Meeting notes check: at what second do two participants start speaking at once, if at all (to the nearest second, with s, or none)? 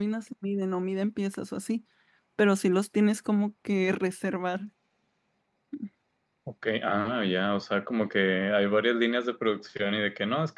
none